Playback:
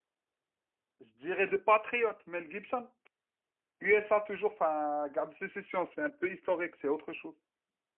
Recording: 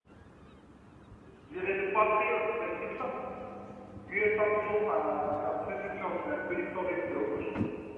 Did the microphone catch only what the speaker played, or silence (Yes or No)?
Yes